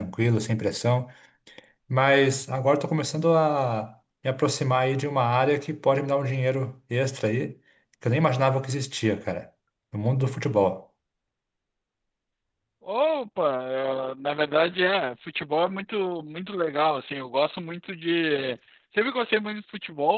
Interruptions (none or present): none